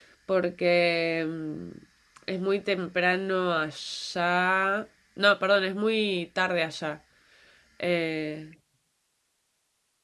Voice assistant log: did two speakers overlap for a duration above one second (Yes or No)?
No